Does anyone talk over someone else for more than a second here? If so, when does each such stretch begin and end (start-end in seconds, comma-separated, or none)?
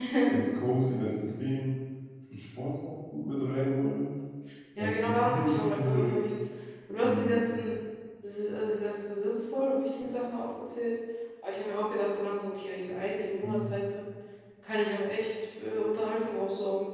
4.8-6.2